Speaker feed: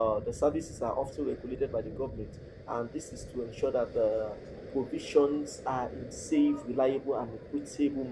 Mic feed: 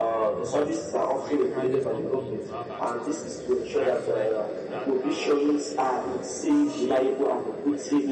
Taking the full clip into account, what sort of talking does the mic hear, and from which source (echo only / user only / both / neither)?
both